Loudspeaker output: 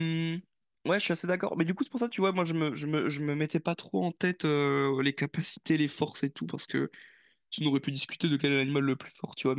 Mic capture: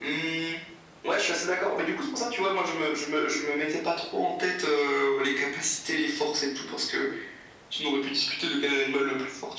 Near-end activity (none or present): none